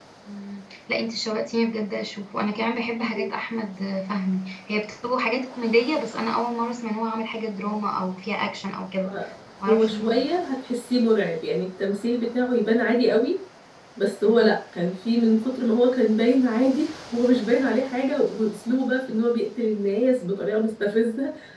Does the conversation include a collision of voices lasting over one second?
No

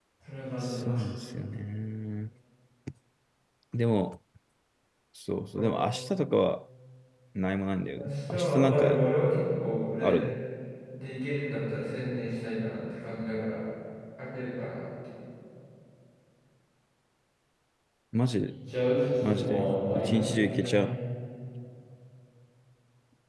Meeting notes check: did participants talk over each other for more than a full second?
Yes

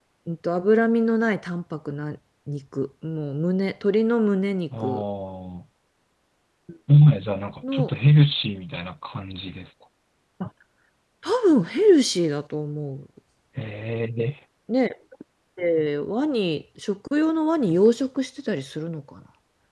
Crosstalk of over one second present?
No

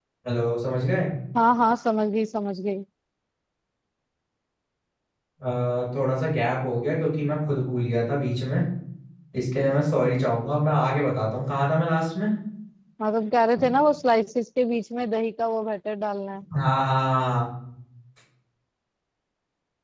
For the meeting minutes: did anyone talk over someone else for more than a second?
No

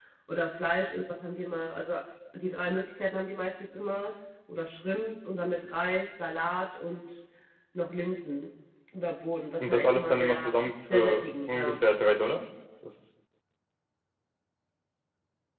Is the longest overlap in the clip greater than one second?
Yes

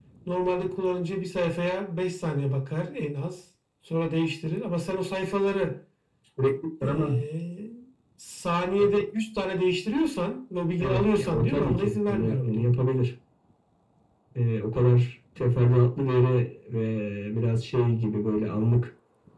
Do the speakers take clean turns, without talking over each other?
No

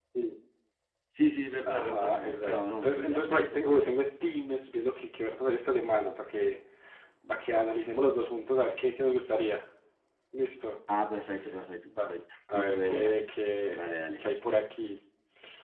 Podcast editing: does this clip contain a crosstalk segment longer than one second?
Yes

